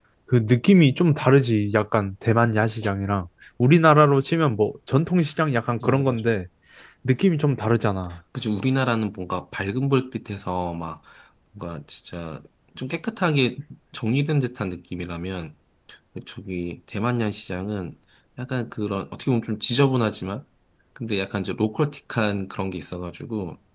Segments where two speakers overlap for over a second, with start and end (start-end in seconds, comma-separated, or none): none